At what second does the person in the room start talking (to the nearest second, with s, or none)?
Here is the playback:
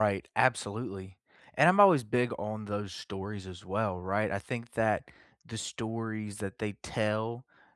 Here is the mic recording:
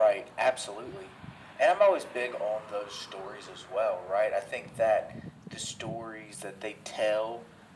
none